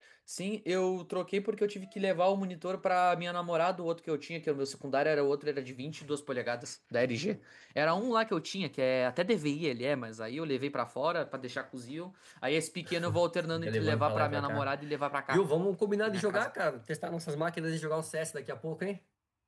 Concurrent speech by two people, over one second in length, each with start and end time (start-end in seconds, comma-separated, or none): 13.5-14.7